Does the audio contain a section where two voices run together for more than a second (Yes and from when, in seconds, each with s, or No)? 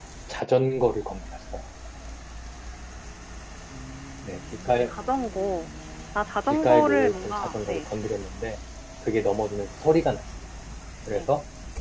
Yes, from 6.5 s